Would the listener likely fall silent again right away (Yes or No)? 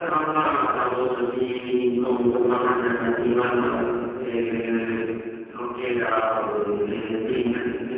No